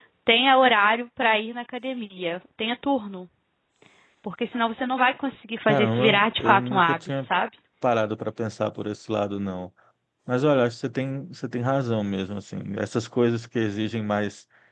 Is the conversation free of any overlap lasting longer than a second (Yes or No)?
No